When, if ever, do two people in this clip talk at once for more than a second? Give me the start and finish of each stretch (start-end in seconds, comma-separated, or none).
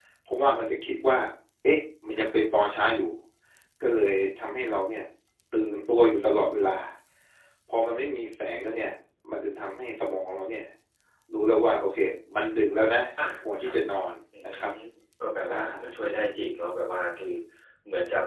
none